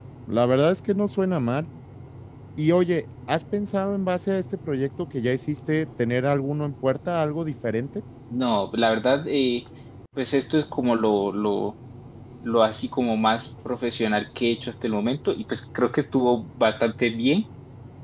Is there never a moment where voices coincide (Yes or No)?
Yes